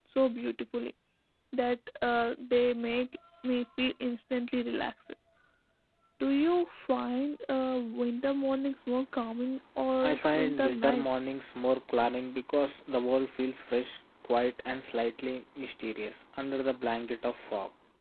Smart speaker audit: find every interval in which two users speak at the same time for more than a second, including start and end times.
10.0-11.2

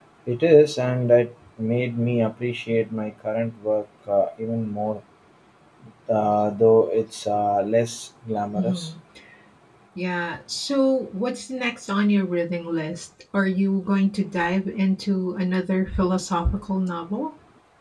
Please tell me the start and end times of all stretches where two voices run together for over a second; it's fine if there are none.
none

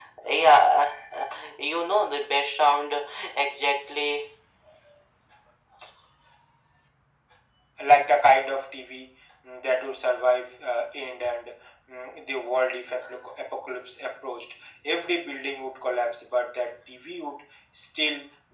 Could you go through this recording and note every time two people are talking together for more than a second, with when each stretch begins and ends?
none

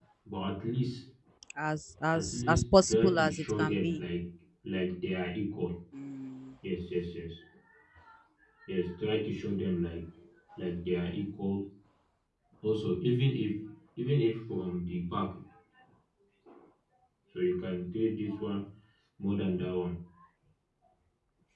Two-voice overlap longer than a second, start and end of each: 2.1-4.0

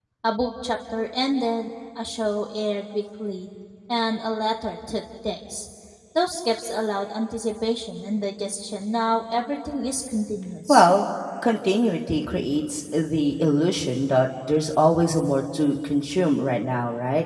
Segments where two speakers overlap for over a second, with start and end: none

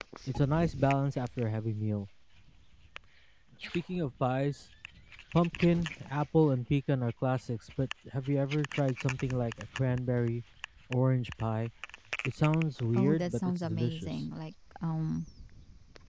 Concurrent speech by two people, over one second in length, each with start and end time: 12.9-14.2

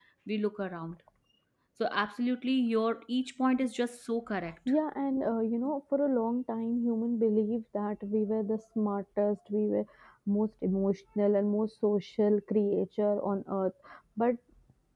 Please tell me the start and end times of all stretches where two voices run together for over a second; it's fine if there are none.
none

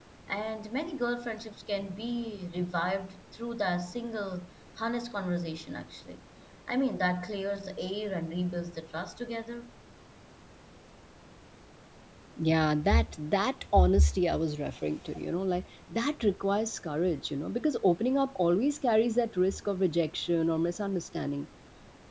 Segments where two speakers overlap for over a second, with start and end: none

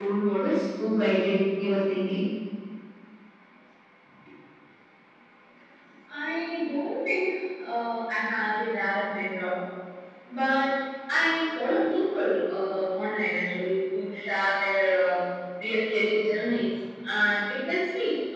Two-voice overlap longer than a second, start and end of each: none

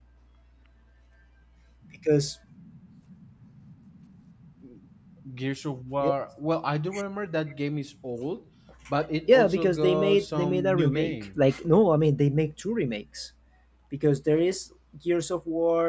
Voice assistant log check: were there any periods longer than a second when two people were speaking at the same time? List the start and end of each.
9.3-11.4

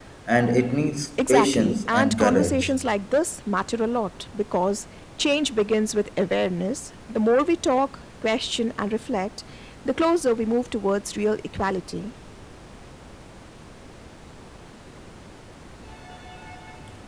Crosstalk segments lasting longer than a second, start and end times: 1.2-2.6

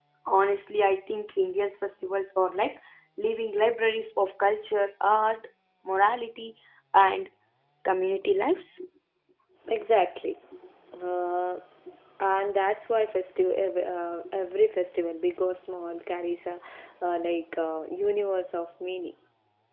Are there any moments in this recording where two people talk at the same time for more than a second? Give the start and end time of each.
none

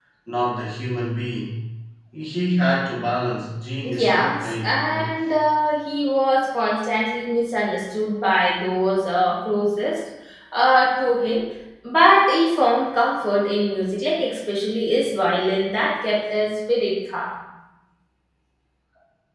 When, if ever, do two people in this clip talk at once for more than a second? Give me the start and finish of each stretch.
3.8-5.1

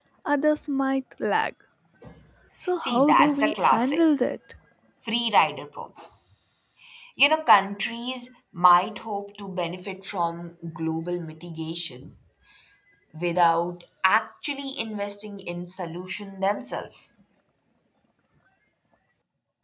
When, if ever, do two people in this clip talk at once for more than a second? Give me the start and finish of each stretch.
2.8-4.0

